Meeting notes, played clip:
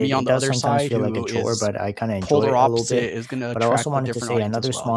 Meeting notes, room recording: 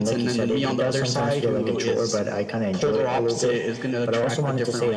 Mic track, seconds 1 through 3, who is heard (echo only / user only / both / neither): echo only